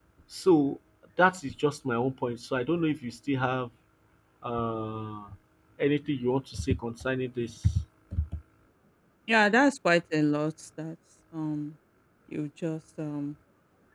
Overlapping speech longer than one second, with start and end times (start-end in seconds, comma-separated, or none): none